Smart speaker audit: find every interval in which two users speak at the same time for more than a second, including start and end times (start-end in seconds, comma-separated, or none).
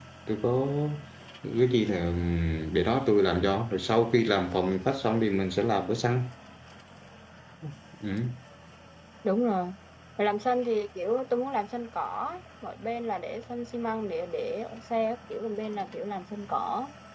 none